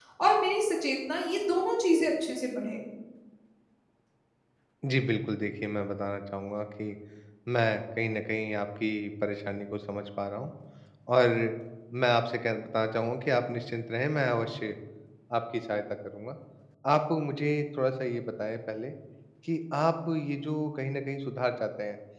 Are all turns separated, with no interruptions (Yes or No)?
Yes